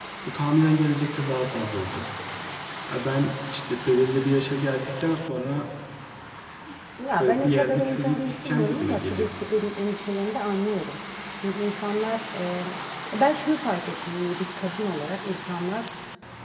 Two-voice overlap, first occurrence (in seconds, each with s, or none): 7.2 s